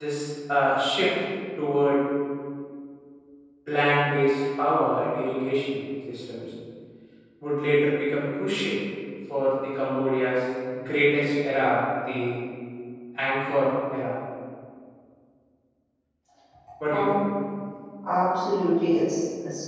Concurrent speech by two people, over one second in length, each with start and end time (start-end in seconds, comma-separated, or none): none